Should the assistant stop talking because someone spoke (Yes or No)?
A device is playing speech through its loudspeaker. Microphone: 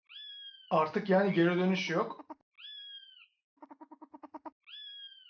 Yes